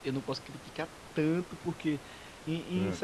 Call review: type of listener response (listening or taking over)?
listening